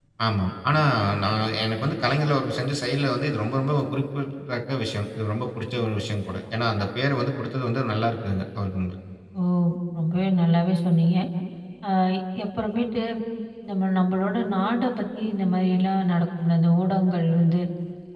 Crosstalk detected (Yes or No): No